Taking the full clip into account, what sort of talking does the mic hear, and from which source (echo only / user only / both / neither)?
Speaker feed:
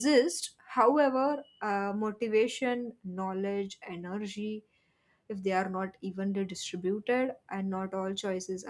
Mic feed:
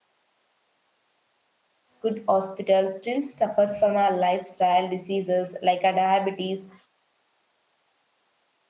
user only